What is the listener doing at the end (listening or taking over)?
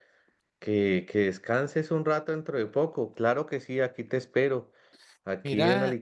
listening